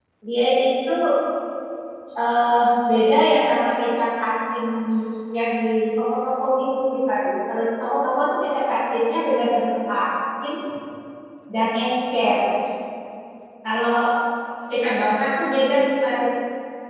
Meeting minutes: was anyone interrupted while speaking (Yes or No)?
No